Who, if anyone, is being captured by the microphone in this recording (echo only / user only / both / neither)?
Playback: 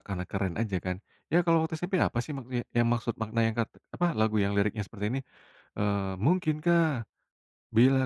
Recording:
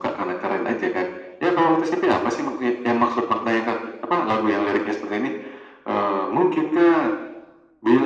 echo only